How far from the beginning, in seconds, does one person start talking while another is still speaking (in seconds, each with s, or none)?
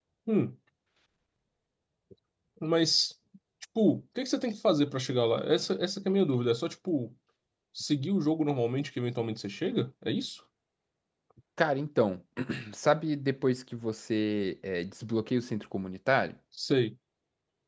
none